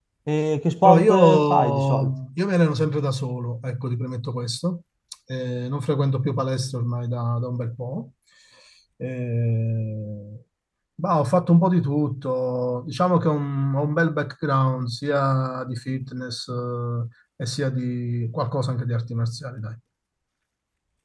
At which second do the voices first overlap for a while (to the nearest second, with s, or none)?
1 s